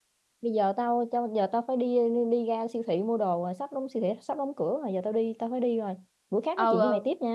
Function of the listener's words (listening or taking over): taking over